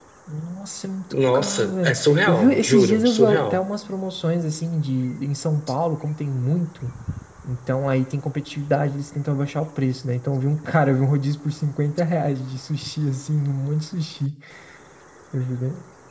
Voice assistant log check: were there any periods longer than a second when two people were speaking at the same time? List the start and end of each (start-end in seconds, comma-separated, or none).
1.1-3.6